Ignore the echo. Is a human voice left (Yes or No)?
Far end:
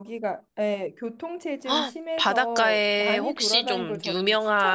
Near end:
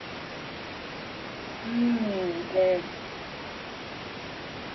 Yes